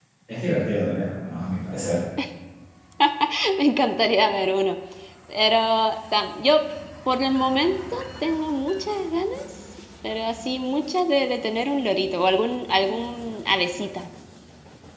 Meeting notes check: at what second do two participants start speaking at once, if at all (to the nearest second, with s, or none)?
none